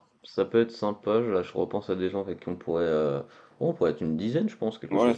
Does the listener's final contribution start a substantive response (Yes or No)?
Yes